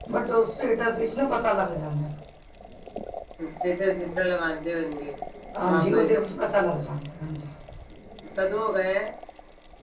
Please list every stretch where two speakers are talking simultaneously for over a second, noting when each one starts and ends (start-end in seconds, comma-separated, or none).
none